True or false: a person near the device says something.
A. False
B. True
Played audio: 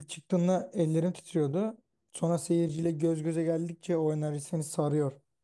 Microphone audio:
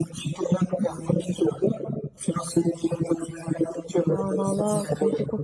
B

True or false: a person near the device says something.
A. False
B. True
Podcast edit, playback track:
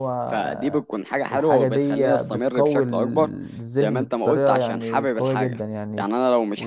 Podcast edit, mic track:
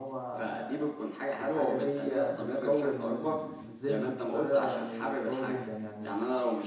A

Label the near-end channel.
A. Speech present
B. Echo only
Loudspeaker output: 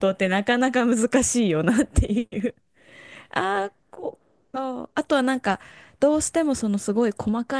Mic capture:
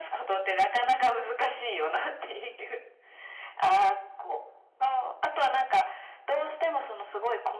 B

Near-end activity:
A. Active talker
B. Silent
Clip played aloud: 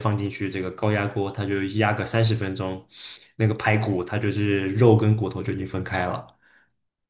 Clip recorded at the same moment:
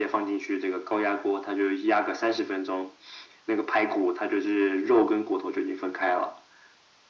B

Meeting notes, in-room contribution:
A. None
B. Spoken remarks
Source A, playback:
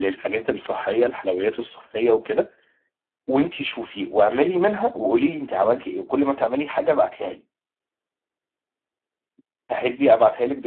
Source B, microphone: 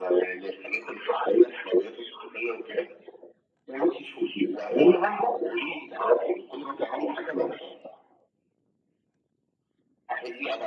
A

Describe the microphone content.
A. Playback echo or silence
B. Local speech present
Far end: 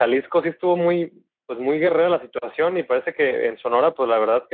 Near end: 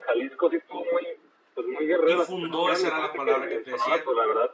B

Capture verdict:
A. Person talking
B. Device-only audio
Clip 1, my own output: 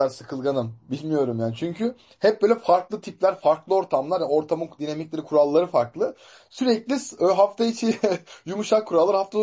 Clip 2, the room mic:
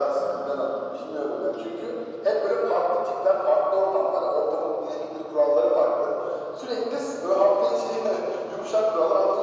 B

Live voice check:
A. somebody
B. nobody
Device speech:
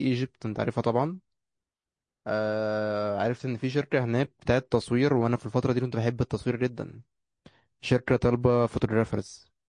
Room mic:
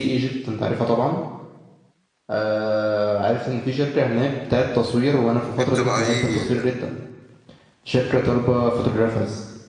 A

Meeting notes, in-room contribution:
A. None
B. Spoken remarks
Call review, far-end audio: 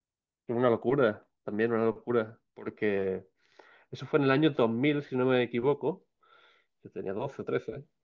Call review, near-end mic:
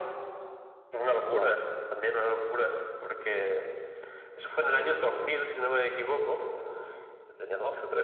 B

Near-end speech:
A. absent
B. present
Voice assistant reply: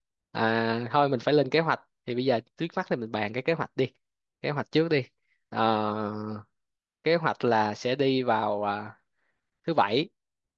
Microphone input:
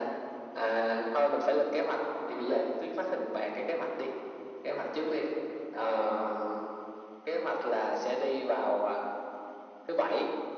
A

